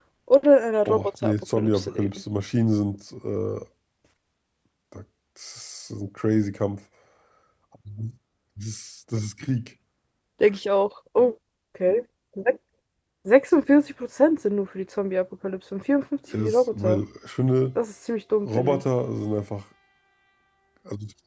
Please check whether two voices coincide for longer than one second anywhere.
Yes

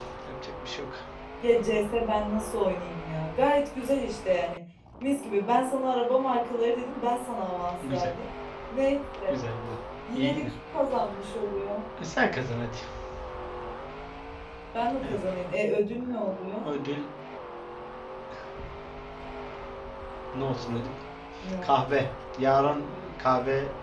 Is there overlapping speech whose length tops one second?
No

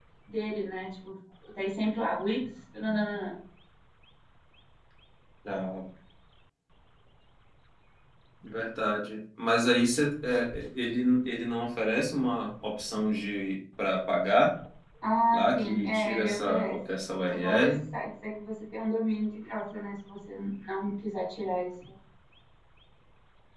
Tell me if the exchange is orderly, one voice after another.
No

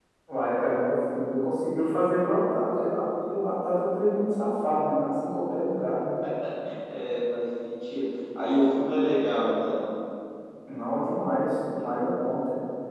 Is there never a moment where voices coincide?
Yes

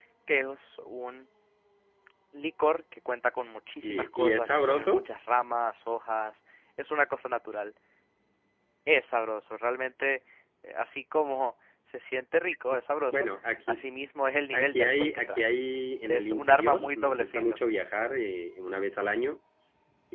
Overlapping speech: Yes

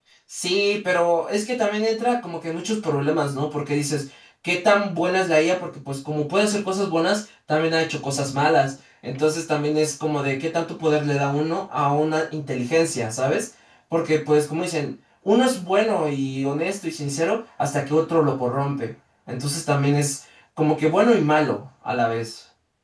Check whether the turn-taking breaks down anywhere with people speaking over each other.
No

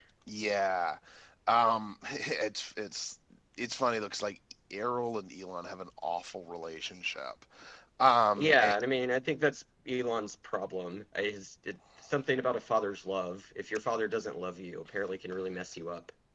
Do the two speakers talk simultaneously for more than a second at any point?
No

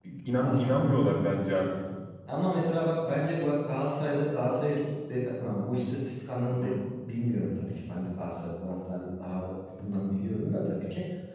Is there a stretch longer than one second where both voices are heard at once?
No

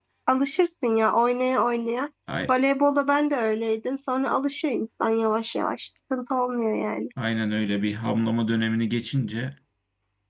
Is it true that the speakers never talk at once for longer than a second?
Yes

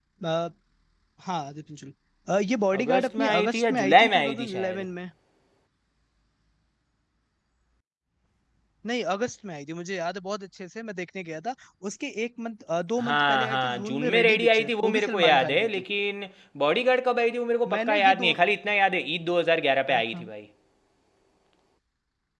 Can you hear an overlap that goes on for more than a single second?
Yes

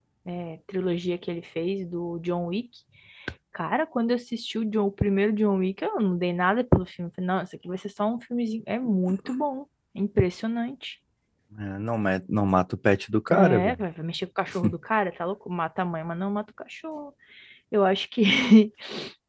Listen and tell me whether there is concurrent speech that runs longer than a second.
No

